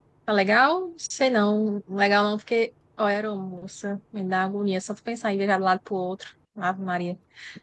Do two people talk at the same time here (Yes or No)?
No